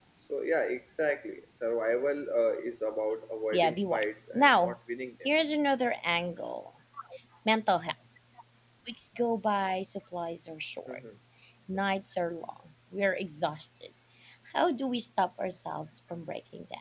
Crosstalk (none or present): present